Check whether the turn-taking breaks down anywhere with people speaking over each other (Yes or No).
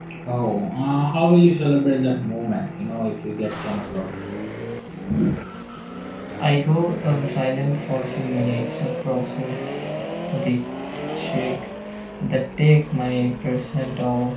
No